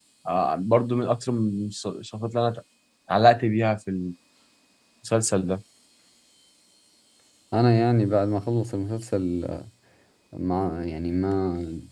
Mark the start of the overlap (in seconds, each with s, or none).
none